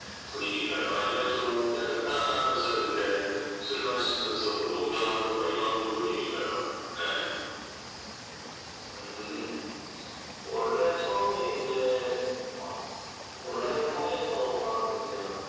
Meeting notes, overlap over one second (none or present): none